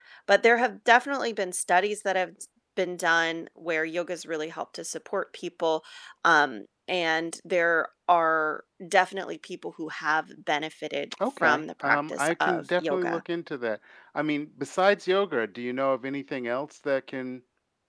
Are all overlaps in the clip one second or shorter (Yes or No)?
No